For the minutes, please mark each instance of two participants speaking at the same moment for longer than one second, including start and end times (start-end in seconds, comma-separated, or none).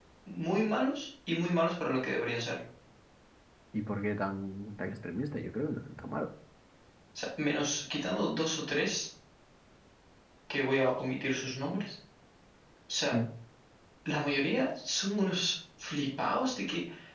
none